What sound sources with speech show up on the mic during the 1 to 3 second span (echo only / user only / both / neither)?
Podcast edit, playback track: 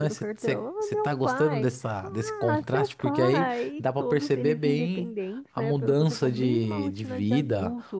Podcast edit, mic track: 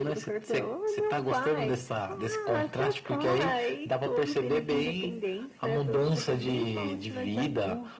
echo only